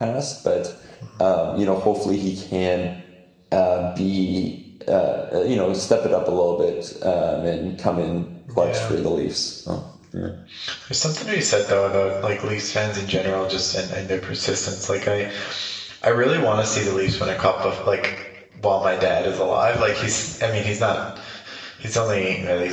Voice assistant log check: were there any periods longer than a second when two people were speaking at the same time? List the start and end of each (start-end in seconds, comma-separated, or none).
none